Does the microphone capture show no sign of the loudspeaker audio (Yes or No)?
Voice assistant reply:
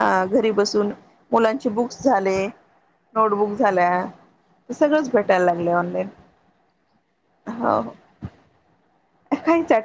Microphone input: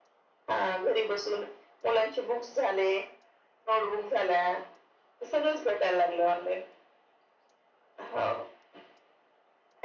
No